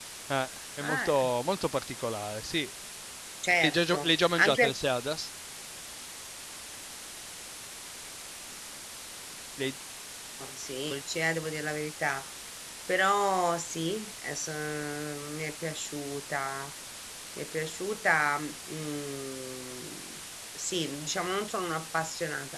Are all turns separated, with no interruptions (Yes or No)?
No